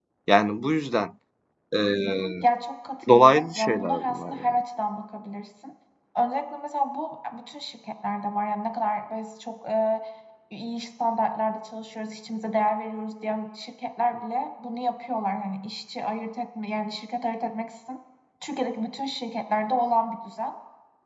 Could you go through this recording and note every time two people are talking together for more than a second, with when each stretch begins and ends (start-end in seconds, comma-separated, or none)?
3.1-4.6